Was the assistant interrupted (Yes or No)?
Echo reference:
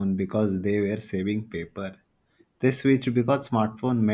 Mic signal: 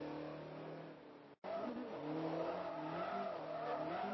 No